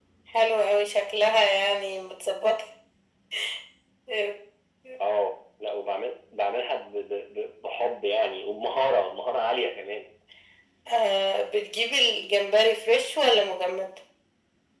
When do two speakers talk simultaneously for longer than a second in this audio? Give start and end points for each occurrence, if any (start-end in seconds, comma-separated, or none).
none